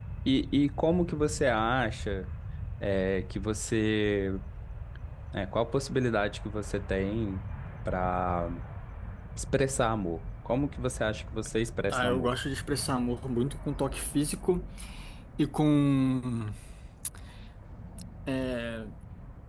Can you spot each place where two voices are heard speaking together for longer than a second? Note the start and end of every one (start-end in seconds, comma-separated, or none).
none